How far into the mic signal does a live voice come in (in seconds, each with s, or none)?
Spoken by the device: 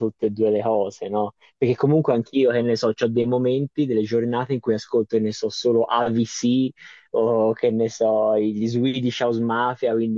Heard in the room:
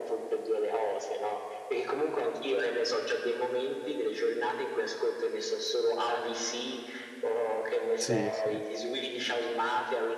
8.0 s